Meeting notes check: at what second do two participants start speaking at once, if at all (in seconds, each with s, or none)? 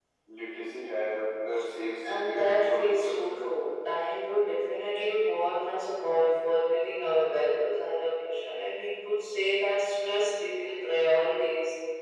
2.0 s